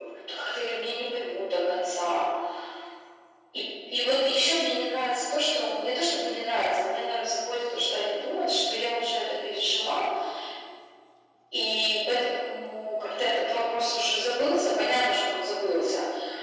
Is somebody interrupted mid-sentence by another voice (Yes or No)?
No